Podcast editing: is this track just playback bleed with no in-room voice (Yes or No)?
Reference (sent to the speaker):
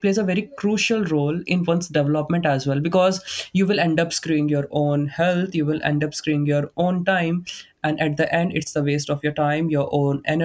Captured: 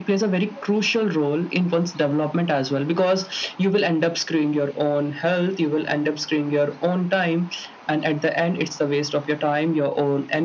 Yes